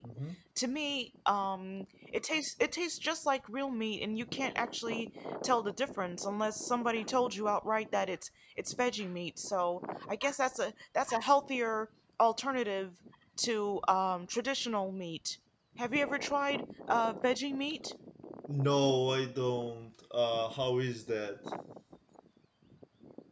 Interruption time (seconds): none

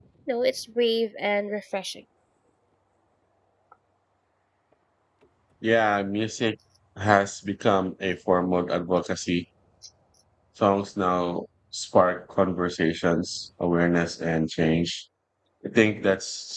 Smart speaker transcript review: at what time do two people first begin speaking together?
none

